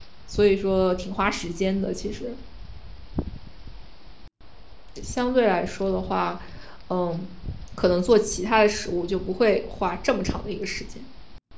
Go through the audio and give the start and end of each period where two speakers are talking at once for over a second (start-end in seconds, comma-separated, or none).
none